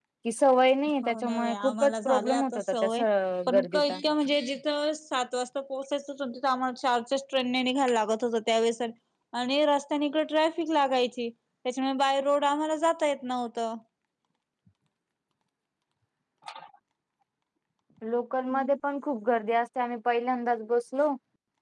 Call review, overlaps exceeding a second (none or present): present